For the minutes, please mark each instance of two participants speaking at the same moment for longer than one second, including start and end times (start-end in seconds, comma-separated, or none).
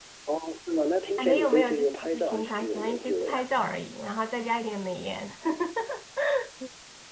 1.2-3.4